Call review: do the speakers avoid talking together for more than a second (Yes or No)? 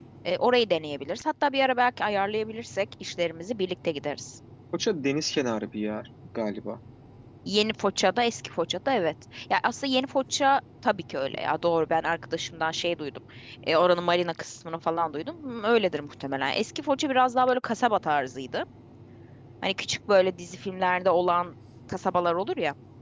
Yes